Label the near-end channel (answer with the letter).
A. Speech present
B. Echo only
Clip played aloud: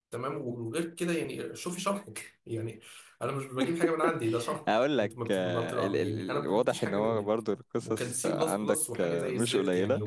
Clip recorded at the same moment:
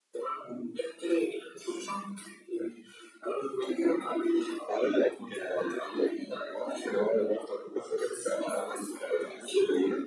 B